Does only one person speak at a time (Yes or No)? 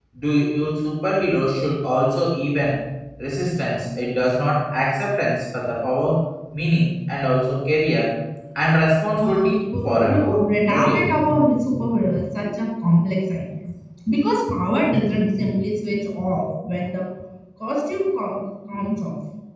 No